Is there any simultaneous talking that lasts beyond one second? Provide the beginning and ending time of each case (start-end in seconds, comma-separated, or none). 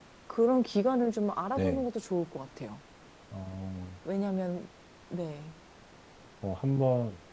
none